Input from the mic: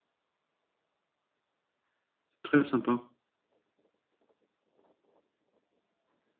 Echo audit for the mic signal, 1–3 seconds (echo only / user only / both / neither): user only